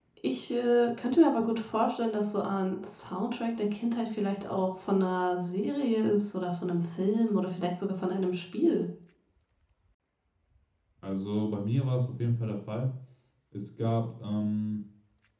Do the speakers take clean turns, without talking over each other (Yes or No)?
Yes